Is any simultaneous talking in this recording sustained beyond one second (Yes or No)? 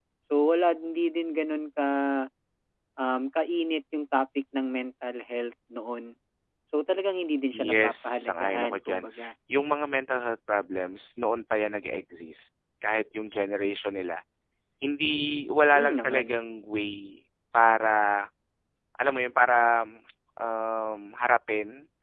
Yes